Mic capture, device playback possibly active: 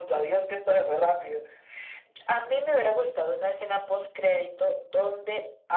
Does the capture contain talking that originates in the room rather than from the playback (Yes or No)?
No